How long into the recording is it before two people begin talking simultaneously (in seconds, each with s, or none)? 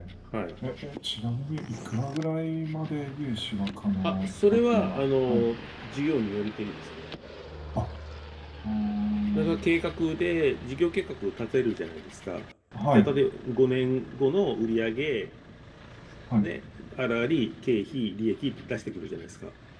4.0 s